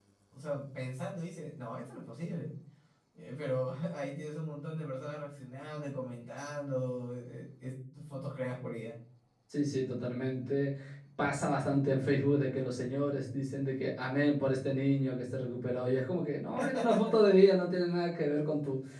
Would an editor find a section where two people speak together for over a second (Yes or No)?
No